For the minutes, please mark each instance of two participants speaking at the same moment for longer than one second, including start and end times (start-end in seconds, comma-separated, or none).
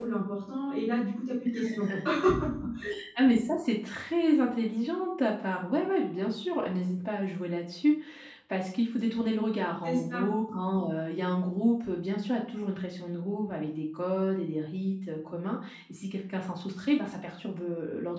none